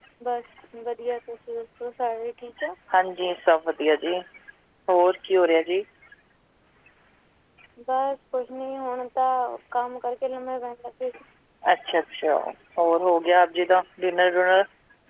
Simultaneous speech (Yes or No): No